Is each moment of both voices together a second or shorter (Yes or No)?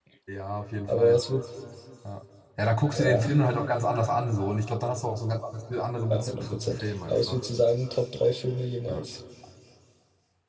No